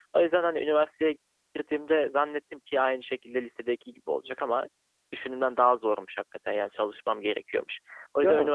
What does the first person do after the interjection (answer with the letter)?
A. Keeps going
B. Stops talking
A